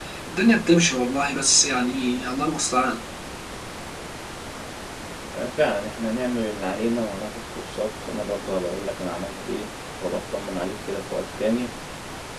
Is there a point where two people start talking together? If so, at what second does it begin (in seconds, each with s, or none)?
none